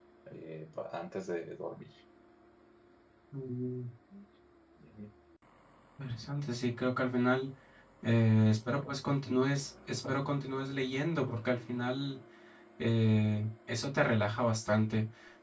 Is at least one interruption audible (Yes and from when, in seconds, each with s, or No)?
No